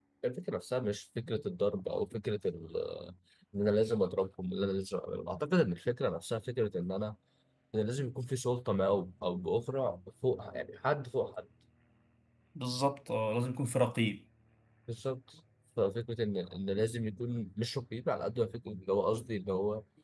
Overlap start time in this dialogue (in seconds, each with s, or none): none